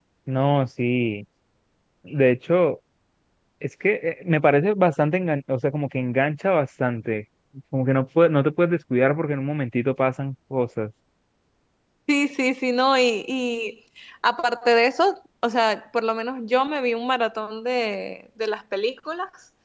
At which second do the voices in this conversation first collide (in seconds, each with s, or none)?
none